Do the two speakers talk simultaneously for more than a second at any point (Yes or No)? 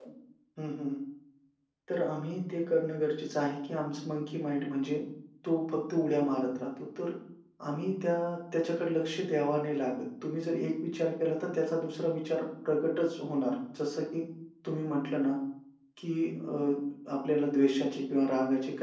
No